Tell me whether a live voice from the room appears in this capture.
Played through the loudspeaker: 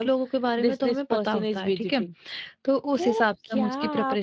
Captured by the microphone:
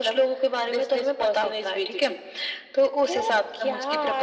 No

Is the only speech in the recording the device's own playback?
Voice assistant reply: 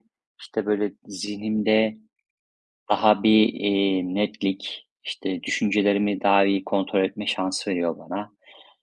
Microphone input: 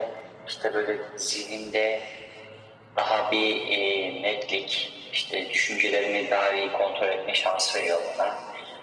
Yes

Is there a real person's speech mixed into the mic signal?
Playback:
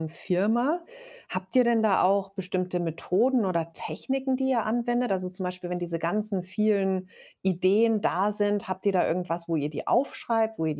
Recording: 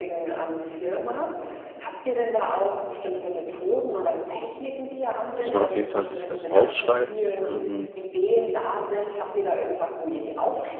Yes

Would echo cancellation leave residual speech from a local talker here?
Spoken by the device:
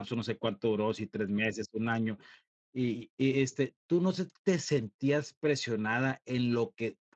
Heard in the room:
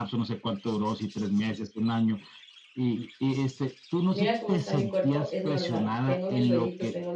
Yes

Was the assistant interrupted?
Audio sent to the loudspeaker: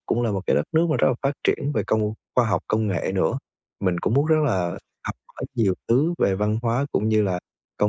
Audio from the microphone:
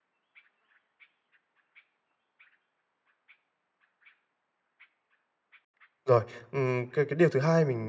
Yes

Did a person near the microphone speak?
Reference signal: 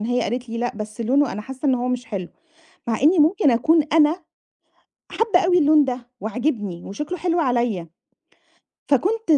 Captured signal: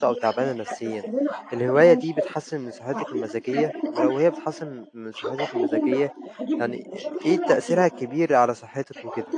Yes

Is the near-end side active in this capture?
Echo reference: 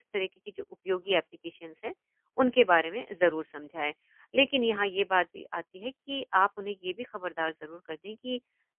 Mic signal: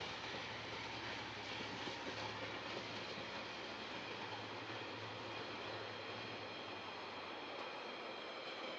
No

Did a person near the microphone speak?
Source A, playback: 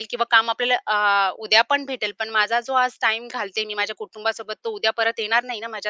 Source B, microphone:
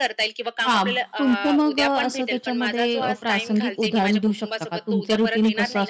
Yes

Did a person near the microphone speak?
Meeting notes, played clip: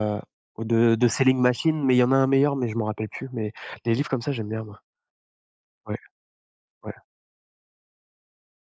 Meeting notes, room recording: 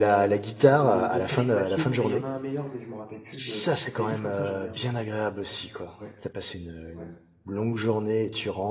Yes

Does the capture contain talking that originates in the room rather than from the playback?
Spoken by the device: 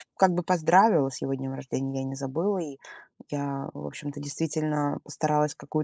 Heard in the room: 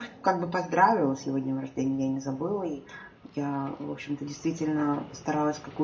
No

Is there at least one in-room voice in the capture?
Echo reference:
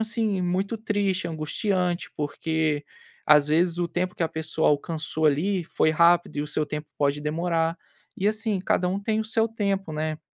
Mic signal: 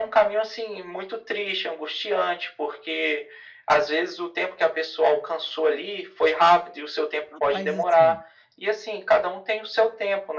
Yes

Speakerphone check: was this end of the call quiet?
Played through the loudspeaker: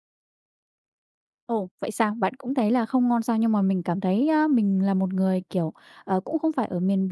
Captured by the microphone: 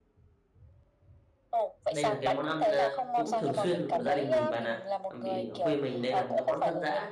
No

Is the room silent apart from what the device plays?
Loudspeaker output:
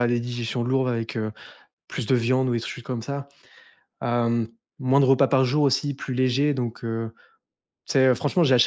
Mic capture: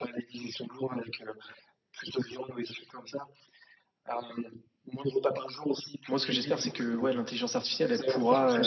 No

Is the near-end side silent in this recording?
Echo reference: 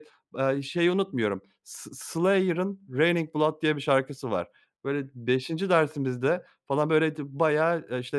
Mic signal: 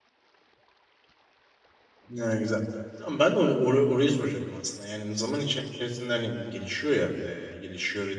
No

